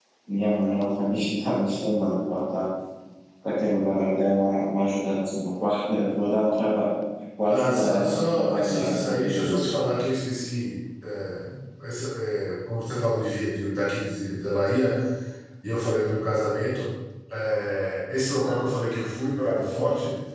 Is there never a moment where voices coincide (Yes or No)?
No